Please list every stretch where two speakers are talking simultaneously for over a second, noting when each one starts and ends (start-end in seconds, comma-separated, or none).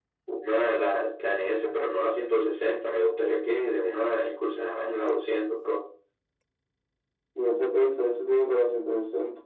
none